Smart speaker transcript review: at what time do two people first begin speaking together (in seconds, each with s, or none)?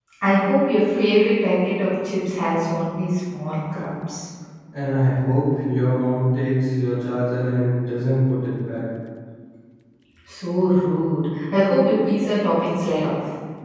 none